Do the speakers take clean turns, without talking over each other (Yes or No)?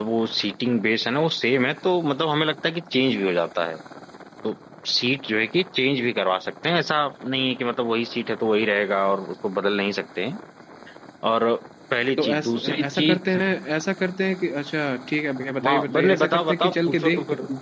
No